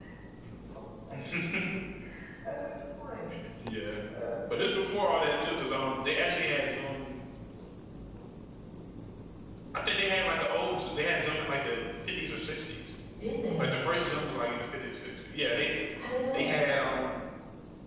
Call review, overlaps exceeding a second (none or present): none